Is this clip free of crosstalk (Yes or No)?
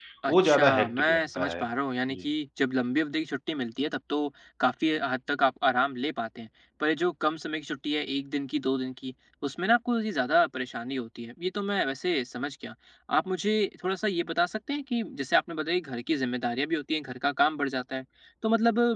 No